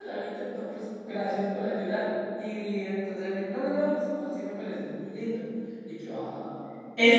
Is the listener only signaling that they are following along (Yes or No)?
No